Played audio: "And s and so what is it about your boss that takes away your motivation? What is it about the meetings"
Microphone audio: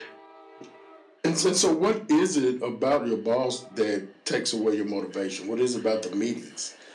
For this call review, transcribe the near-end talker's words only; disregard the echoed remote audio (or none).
none